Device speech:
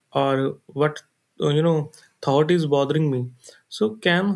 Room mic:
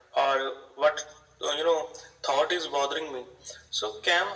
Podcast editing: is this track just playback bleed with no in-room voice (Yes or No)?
Yes